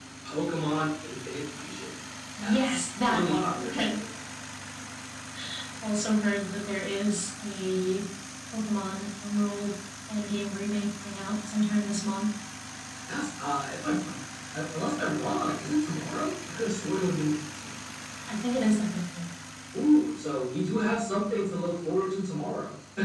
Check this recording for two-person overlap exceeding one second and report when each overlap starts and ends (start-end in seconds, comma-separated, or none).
2.4-4.0